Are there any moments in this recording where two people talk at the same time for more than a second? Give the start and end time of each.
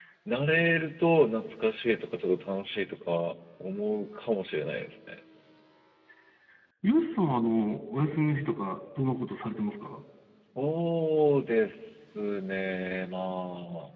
none

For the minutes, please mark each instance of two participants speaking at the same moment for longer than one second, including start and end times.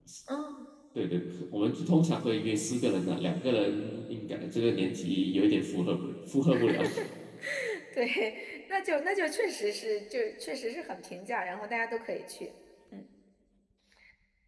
none

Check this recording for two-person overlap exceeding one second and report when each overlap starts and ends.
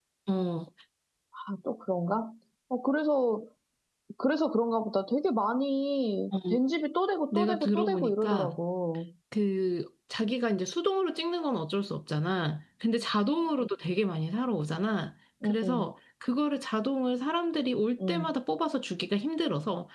7.3-8.6

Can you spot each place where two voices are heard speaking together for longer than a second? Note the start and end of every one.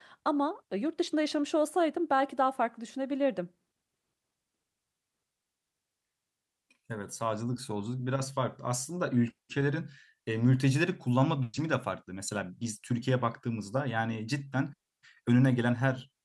none

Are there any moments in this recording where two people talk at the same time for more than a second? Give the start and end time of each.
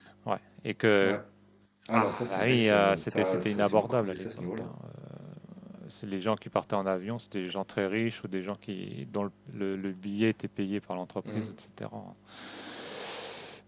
1.9-4.7

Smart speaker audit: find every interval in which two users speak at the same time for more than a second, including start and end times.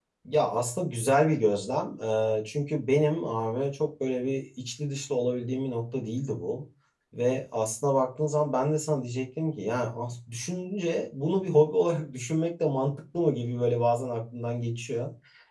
none

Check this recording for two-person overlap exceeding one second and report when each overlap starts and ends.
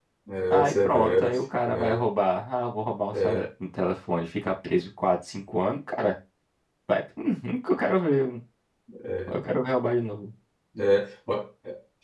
0.5-2.0

